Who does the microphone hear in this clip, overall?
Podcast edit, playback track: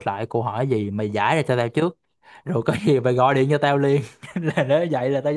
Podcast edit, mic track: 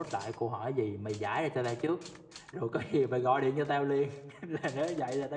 echo only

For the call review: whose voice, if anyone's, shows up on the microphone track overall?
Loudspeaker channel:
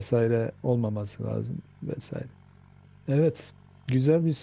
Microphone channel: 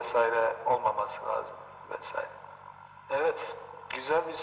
echo only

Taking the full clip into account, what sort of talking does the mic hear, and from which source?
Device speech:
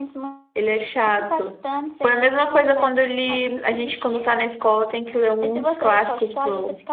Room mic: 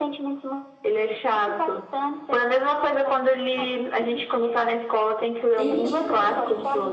both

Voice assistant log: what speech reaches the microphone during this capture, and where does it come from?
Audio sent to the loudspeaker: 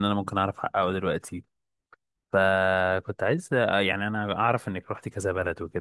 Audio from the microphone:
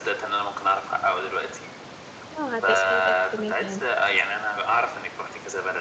both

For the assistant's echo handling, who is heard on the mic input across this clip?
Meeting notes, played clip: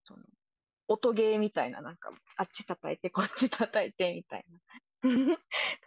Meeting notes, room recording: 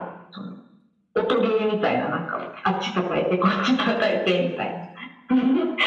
echo only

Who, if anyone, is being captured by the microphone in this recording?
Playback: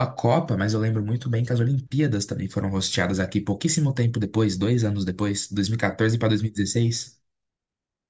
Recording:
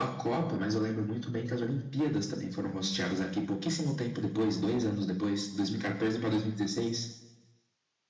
echo only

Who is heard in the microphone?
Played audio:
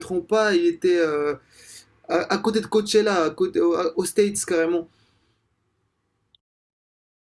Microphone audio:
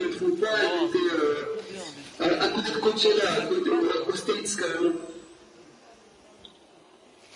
both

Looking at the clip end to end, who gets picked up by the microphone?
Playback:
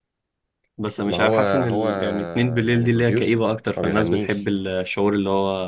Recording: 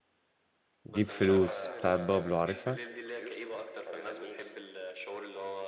both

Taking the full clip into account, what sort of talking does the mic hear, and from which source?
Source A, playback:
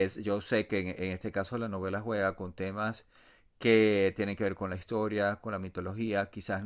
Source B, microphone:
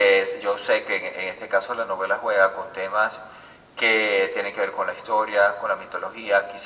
echo only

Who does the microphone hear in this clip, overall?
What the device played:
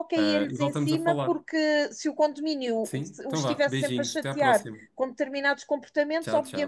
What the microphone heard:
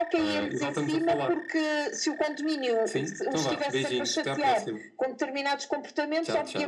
echo only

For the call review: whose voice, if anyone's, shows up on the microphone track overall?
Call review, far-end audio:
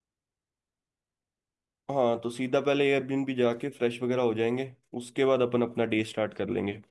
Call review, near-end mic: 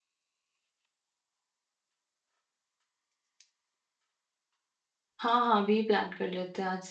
user only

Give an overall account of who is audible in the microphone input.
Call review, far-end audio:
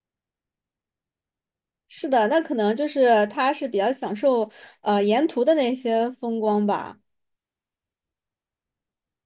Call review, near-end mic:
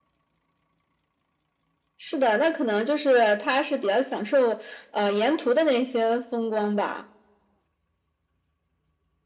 echo only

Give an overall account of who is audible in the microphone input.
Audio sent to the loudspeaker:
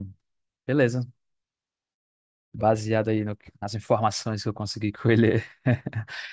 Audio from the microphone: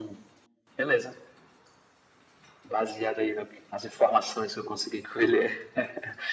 echo only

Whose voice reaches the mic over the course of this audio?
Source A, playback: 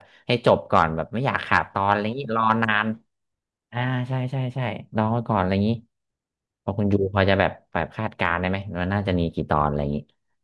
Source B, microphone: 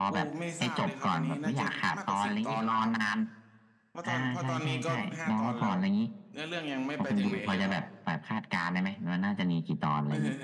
both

